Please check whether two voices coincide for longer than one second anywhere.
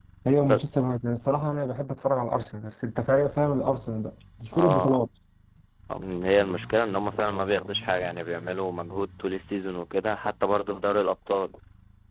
No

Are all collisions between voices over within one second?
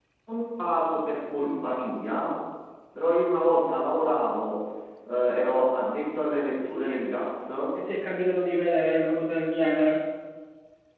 Yes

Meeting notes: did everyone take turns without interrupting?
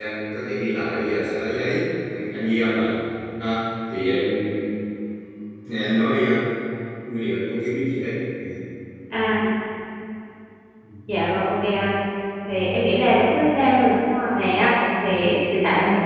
Yes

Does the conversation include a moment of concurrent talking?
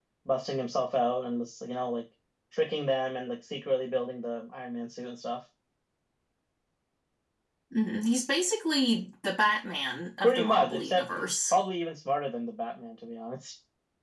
Yes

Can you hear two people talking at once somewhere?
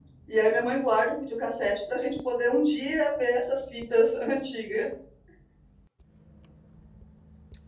No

